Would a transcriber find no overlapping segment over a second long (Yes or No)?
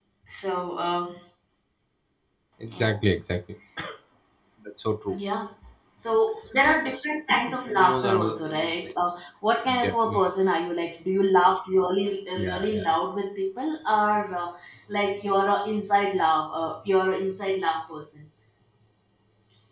No